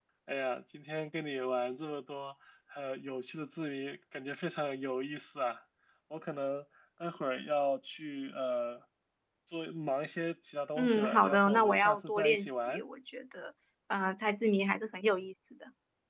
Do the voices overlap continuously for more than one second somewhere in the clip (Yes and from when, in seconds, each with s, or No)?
Yes, from 10.8 s